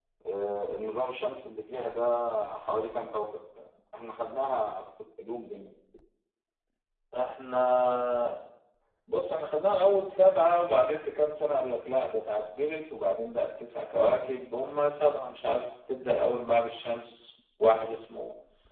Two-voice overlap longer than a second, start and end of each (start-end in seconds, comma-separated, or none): none